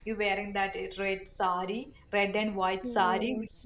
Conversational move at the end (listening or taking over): taking over